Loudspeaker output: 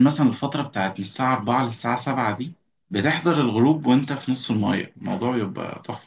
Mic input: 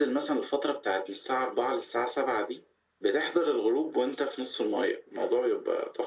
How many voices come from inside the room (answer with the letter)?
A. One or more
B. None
B